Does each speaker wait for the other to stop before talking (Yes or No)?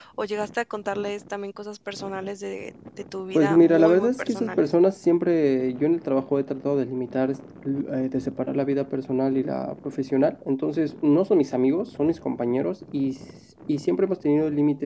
No